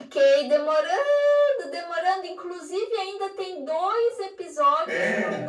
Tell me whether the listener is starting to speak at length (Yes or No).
No